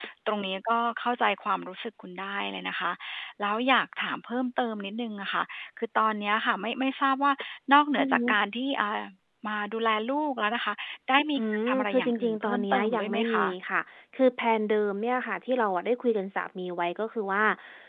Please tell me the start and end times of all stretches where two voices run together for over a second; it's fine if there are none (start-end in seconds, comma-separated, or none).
11.7-13.5